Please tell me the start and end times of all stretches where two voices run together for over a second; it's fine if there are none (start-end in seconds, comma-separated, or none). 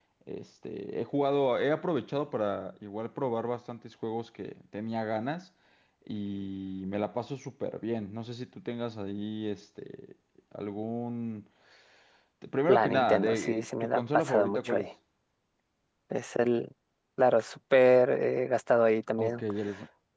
12.7-14.9